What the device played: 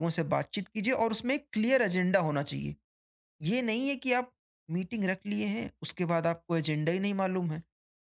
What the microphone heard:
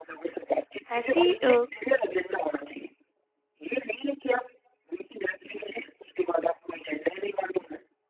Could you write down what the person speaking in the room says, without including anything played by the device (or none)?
ऐसी अ,